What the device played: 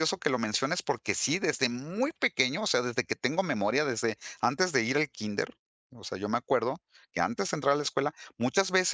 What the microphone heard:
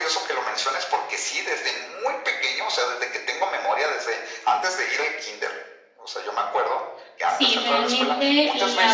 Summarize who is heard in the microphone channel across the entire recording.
both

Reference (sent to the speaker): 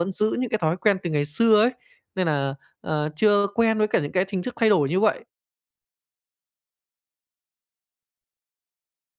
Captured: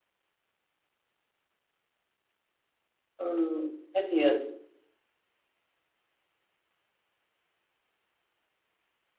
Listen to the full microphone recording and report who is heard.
user only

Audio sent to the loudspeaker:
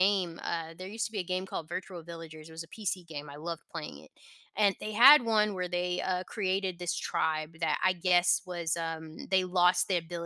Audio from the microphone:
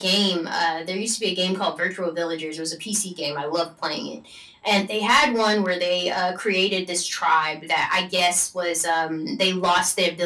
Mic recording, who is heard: echo only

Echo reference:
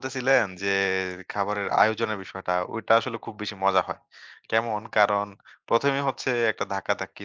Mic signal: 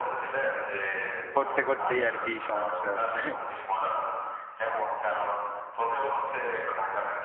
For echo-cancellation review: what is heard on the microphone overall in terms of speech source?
both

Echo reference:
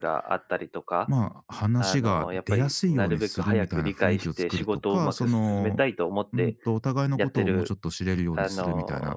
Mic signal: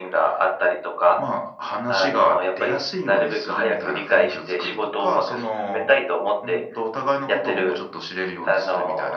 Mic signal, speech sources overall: echo only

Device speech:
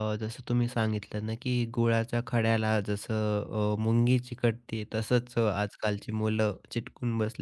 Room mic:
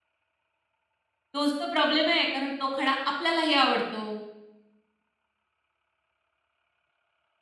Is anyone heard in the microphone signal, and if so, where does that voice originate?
user only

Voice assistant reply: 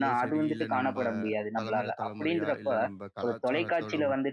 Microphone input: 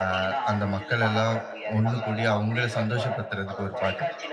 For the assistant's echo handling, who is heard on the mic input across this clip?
both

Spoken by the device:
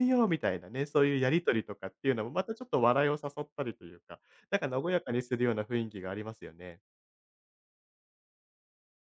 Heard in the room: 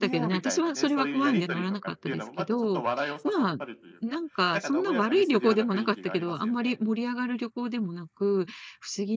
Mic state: both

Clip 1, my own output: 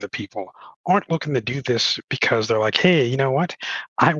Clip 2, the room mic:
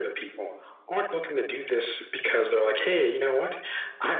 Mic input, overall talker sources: echo only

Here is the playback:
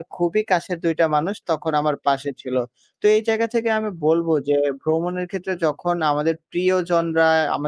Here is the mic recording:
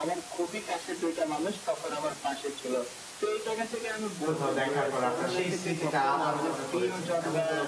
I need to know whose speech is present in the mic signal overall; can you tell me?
both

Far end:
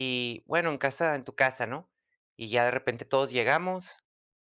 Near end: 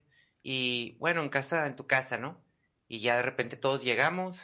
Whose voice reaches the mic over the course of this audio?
echo only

